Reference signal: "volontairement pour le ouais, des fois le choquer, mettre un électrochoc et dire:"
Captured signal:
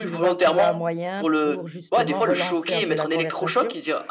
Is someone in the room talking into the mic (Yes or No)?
Yes